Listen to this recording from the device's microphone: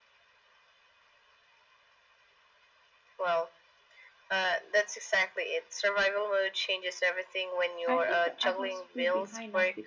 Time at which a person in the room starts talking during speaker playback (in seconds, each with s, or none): 7.9 s